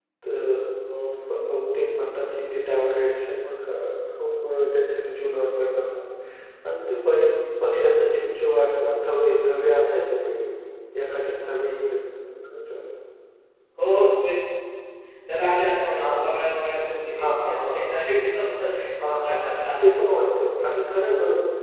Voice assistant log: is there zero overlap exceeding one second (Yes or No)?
No